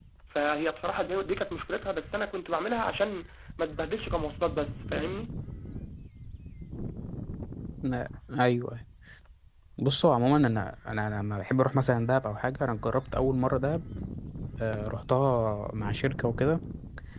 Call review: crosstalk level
none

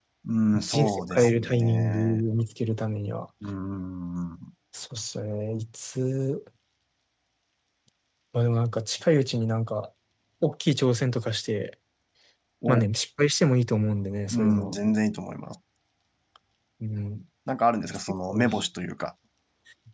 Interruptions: present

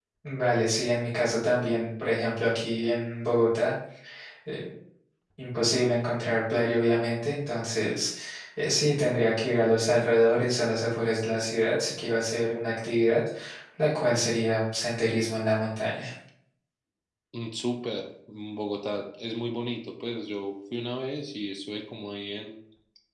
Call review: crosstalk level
none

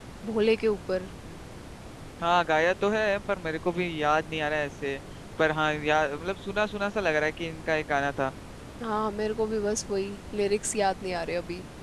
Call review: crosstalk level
none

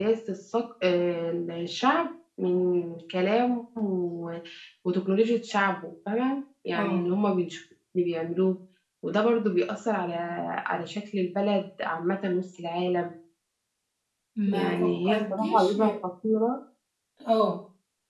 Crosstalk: present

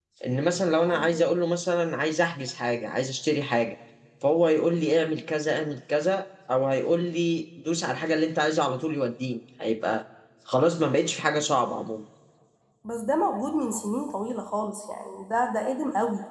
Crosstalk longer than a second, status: none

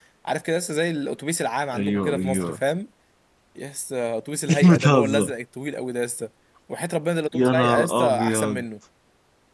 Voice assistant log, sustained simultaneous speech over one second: present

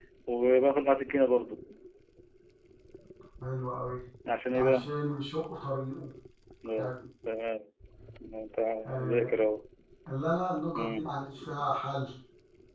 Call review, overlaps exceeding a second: none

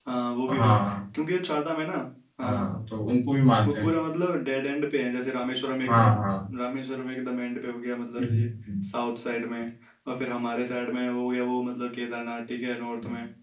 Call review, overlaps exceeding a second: none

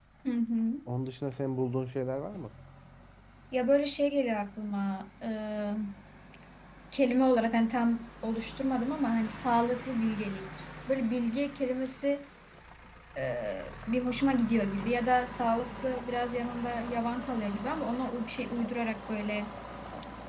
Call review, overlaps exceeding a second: none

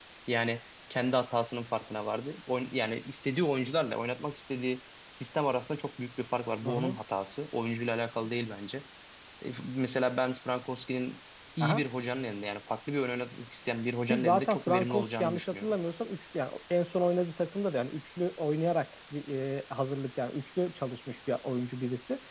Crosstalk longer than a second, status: present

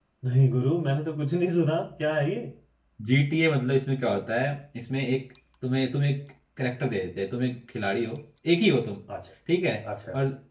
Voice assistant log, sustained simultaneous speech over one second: none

